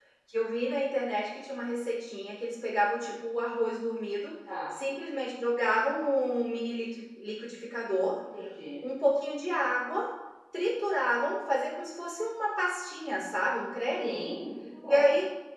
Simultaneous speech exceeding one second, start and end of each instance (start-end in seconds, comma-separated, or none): none